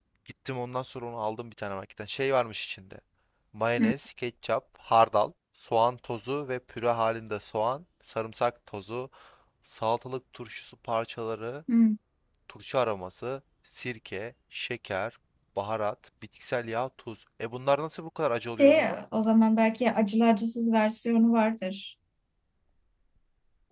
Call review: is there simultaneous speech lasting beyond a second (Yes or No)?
No